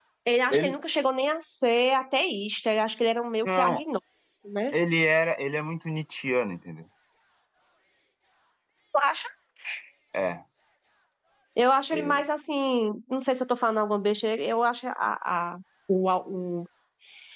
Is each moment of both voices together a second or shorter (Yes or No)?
Yes